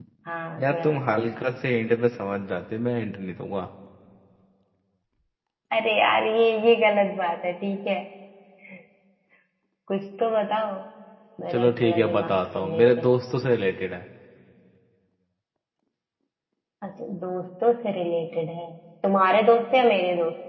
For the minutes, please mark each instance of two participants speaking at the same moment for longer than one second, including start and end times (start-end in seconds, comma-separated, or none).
11.5-13.1